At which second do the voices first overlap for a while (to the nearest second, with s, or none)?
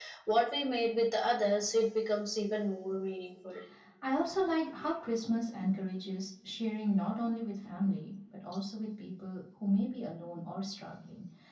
none